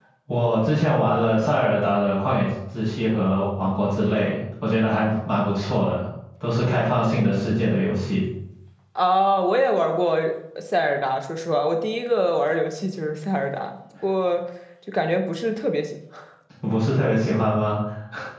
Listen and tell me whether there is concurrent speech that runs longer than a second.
No

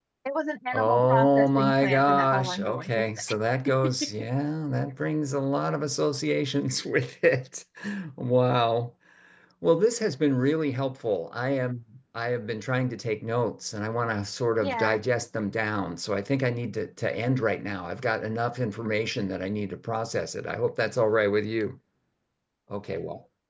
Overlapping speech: Yes, from 0.7 s

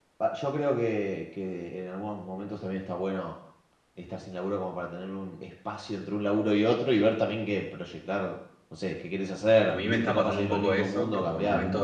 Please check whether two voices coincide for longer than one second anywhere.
Yes, from 9.7 s

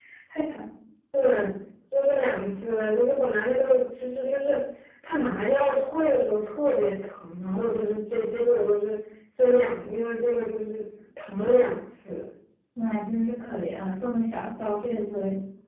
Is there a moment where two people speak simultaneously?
No

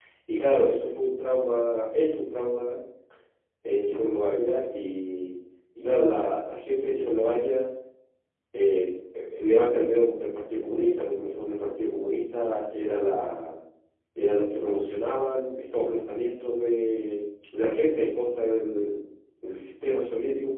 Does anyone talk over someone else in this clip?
No

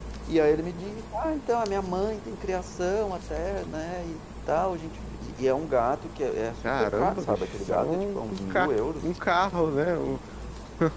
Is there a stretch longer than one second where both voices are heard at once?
Yes, from 6.6 s

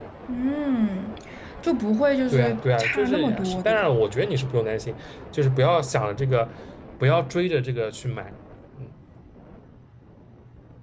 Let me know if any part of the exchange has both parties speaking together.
Yes, from 2.3 s

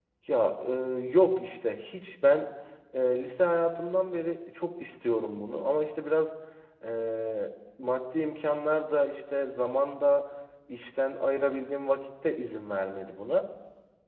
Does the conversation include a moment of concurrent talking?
No

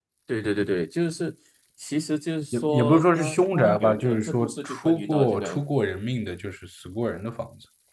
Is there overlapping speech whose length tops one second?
Yes, from 2.5 s

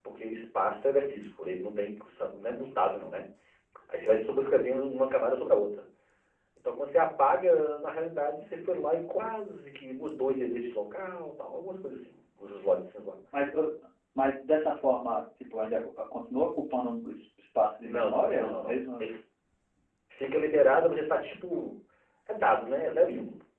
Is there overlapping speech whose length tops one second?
Yes, from 17.8 s

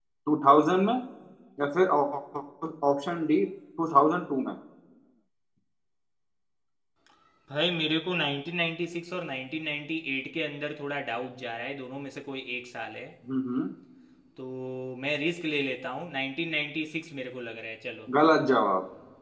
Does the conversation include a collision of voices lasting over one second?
No

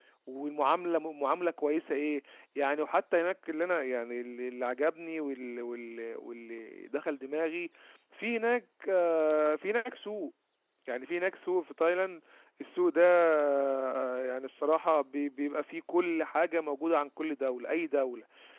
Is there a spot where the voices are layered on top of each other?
No

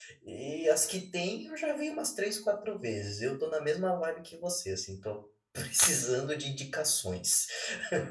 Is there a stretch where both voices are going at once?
No

